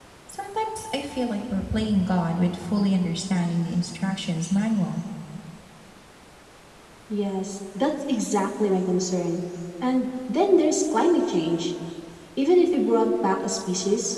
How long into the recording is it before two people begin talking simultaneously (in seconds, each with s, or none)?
none